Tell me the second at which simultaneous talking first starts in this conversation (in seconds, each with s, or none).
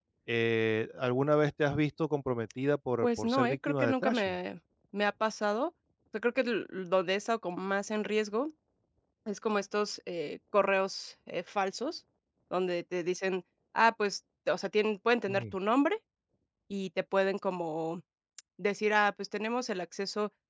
3.0 s